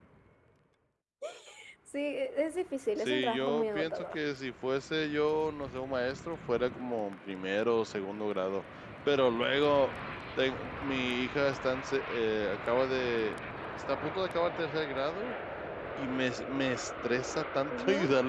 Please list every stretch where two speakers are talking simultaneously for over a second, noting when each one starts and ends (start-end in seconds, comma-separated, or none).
3.0-4.2